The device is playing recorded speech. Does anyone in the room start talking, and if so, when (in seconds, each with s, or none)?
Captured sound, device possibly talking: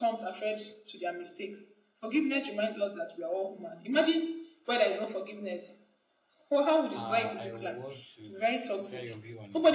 7.0 s